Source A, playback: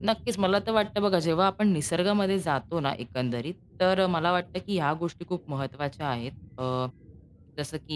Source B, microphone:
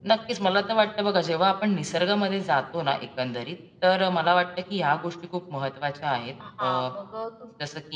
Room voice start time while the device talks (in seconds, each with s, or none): 6.4 s